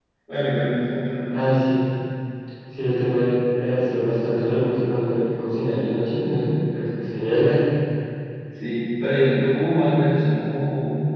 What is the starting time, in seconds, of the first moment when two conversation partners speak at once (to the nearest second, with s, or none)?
none